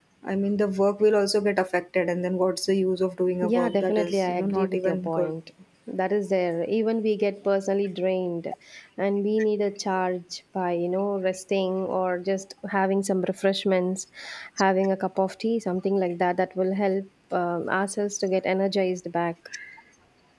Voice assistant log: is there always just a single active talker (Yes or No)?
No